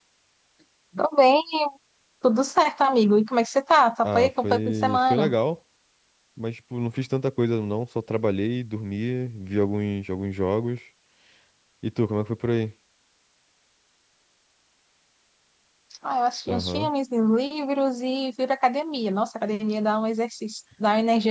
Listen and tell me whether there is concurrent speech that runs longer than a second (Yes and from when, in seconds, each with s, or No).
Yes, from 4.0 s